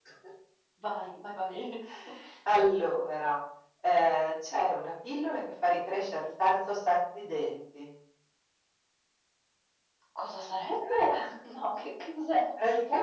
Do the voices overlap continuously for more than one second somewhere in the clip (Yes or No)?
No